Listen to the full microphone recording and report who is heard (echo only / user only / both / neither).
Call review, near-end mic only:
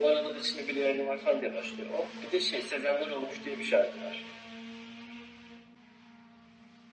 echo only